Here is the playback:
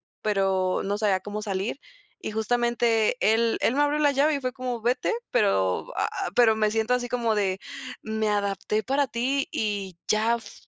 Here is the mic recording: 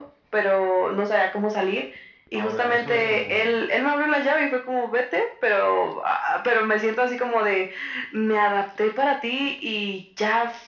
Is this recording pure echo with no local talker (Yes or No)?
No